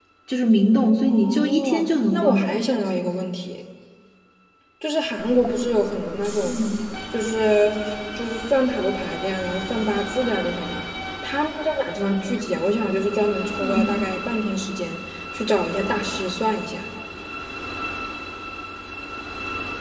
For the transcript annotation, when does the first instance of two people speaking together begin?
1.1 s

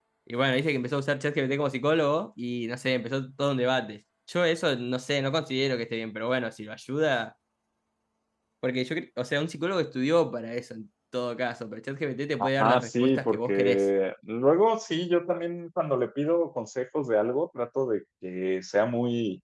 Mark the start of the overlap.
12.4 s

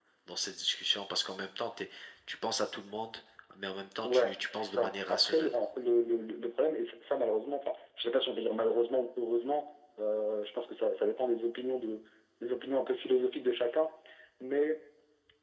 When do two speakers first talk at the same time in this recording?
4.0 s

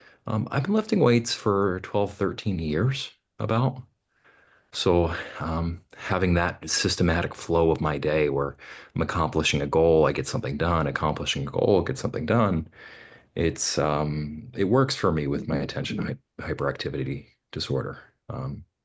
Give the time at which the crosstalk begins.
none

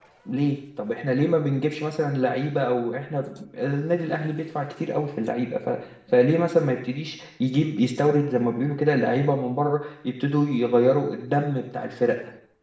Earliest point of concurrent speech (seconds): none

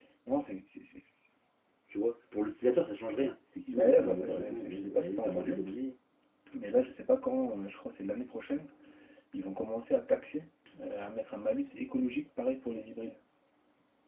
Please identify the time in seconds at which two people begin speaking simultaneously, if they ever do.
3.7 s

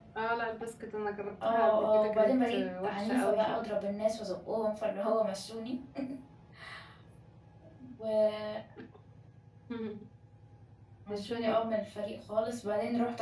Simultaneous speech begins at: 1.4 s

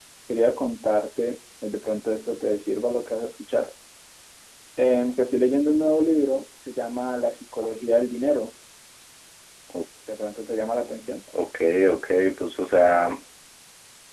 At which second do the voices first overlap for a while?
none

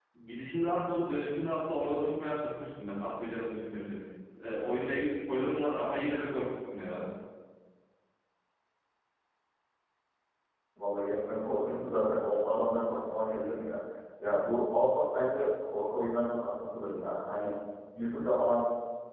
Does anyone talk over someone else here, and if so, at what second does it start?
none

